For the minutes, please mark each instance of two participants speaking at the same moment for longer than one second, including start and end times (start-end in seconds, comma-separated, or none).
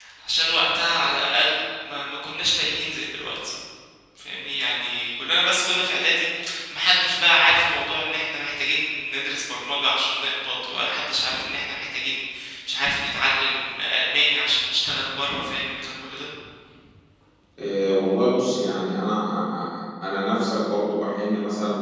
none